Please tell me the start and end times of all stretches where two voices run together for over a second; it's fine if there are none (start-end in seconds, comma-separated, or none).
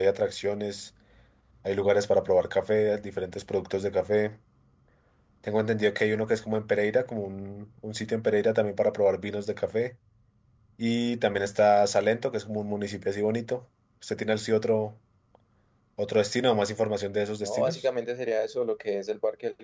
none